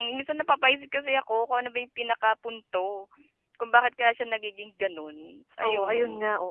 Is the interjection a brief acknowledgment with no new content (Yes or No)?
No